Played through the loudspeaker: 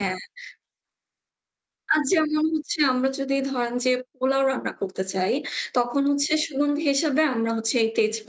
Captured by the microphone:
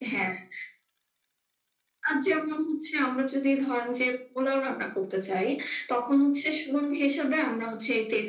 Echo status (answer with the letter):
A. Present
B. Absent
A